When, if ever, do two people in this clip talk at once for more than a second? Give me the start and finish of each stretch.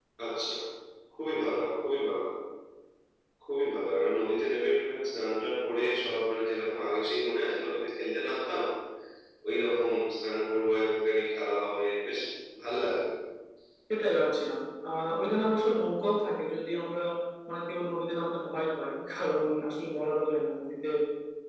none

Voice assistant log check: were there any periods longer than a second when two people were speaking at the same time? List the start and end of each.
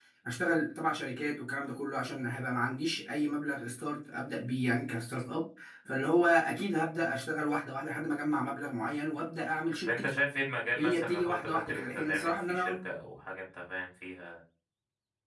10.8-12.8

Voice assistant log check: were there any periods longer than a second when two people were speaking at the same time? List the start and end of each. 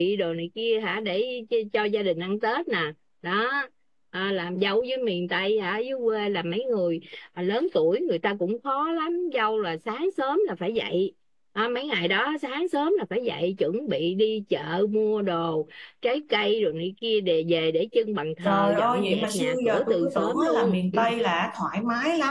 18.4-20.7

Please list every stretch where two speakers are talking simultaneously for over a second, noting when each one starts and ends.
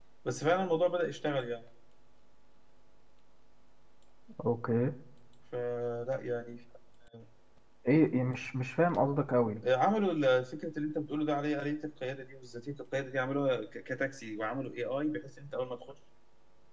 none

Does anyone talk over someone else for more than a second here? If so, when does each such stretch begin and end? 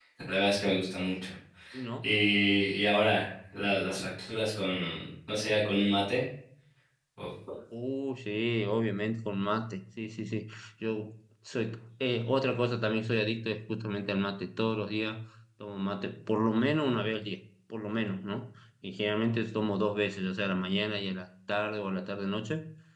none

